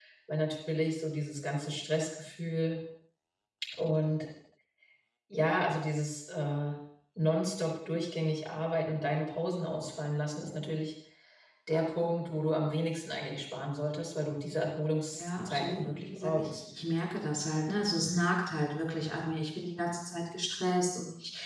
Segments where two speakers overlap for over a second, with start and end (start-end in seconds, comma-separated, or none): 15.1-16.5